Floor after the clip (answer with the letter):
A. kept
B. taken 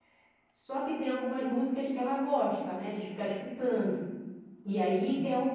A